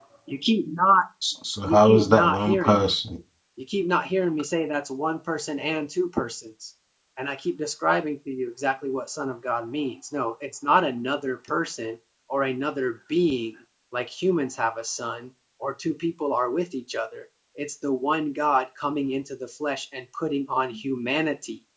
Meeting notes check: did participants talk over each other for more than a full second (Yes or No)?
Yes